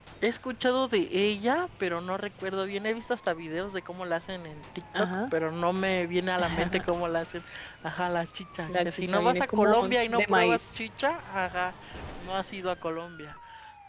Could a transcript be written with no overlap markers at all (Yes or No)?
No